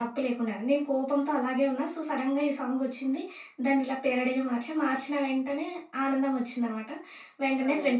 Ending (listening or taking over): listening